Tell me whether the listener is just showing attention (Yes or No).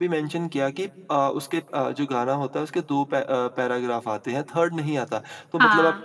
Yes